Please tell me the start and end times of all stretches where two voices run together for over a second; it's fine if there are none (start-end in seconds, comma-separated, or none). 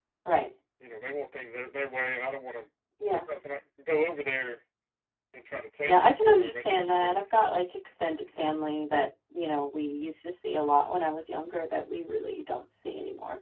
5.8-7.5